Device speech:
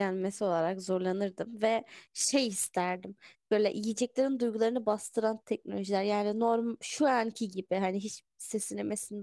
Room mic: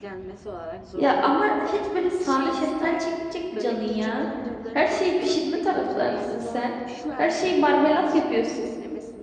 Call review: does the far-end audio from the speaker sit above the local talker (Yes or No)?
No